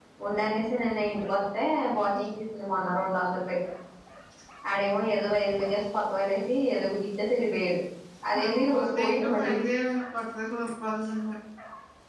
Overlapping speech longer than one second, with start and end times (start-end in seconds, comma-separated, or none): 8.3-9.6